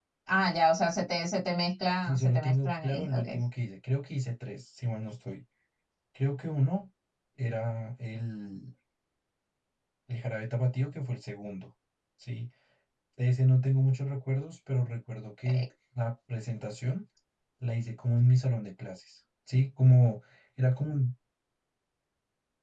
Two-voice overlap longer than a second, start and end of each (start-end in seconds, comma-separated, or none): 2.0-3.4